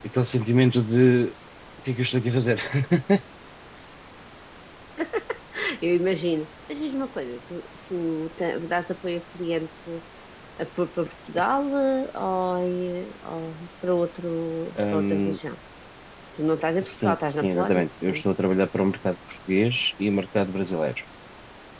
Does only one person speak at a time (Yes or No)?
No